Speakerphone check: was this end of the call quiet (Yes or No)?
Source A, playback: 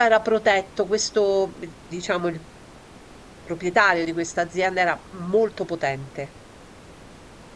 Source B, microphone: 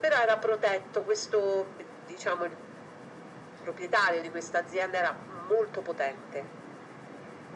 Yes